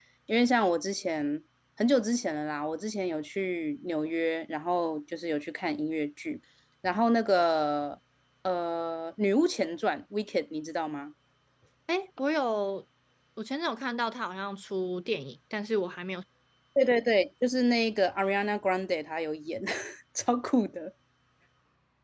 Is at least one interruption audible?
No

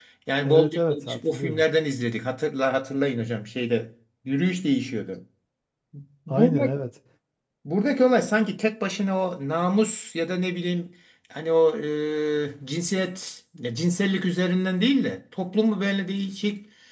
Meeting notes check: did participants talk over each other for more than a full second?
Yes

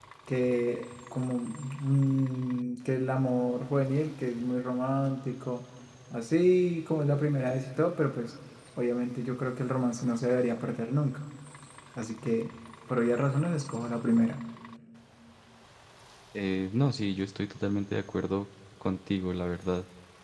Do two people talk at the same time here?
No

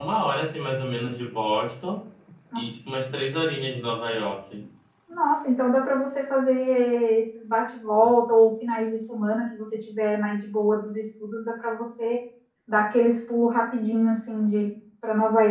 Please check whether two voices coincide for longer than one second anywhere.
No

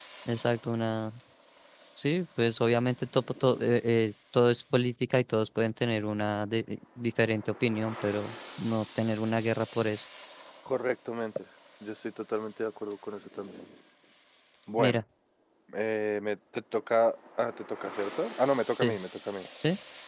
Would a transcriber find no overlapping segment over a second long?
Yes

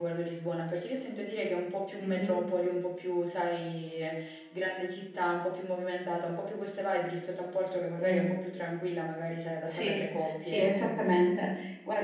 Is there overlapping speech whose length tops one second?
Yes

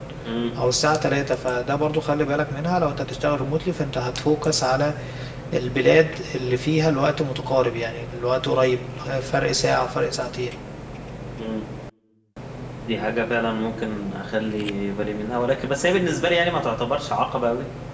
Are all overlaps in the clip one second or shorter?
Yes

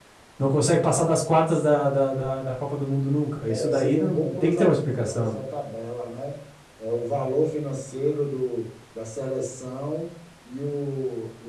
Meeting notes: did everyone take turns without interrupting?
No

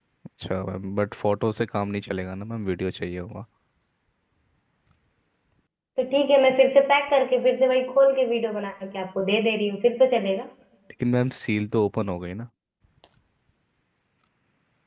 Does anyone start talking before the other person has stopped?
No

